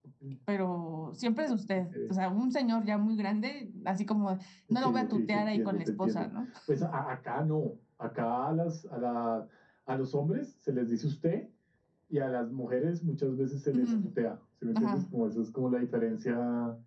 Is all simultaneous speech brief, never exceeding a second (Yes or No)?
No